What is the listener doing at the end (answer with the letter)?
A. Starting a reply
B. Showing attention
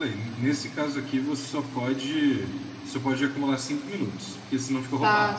A